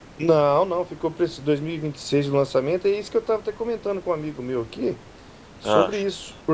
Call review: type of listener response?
listening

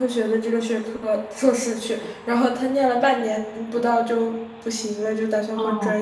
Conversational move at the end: listening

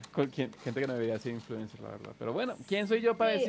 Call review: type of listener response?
taking over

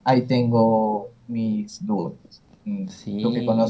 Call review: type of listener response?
taking over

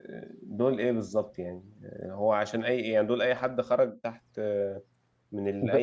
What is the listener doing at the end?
listening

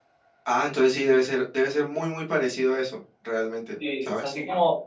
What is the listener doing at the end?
taking over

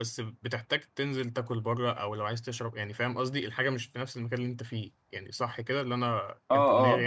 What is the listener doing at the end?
taking over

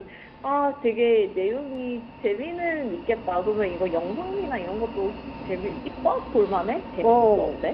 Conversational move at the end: taking over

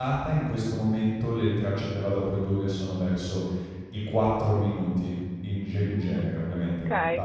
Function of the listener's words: taking over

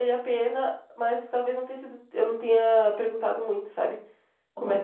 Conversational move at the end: taking over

